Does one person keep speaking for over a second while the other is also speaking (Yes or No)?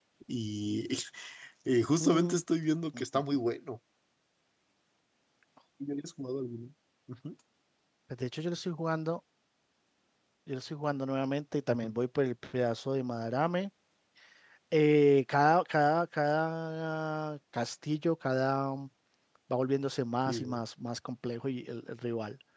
No